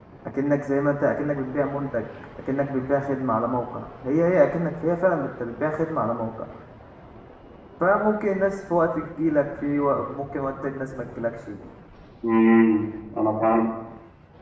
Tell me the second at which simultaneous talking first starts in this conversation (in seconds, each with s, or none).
none